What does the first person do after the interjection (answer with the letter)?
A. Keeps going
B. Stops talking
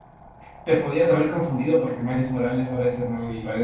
B